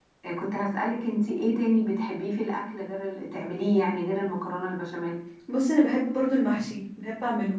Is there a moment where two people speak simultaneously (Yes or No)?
No